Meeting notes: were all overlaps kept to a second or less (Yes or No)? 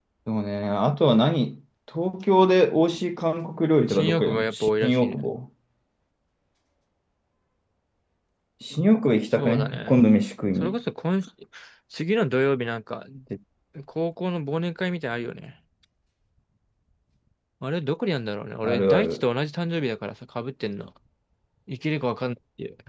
No